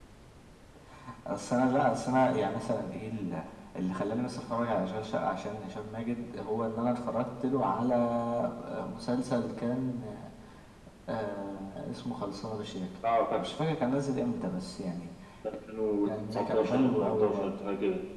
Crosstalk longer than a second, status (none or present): present